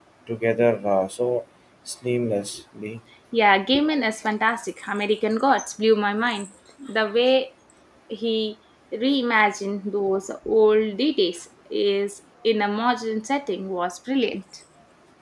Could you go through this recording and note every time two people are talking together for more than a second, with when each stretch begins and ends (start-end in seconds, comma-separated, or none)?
none